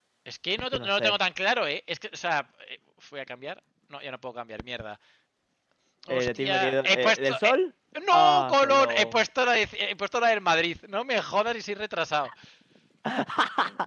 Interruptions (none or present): present